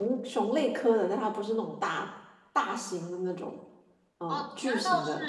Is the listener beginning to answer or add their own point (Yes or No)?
Yes